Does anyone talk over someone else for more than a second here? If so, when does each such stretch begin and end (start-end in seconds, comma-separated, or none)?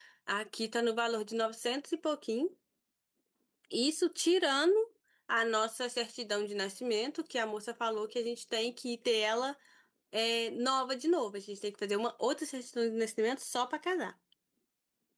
none